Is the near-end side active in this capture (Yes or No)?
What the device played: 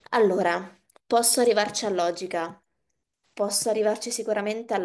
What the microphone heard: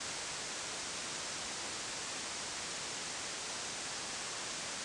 No